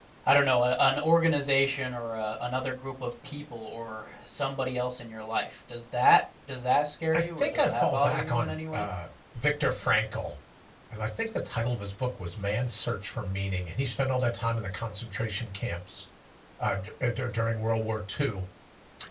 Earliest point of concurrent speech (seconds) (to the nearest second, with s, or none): 7 s